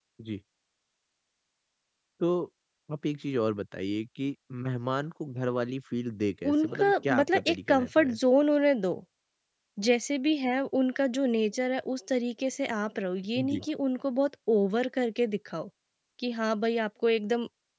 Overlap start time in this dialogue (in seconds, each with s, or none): 6.5 s